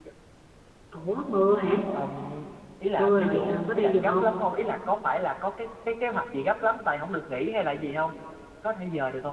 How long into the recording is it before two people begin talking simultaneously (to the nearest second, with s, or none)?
3 s